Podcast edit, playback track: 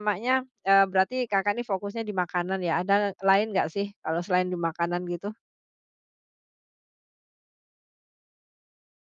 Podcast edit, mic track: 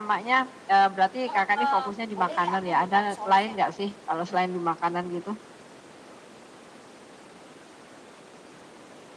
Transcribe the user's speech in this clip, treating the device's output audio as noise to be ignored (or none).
Heeh, "Boleh nggak aku minta risolesnya?"